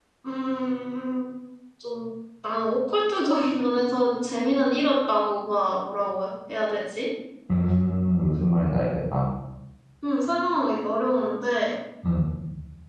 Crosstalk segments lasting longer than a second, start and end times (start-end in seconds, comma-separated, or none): none